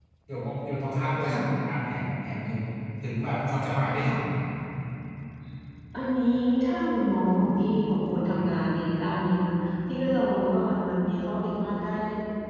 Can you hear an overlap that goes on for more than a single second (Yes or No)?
No